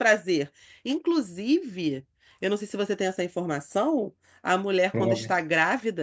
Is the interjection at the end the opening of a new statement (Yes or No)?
No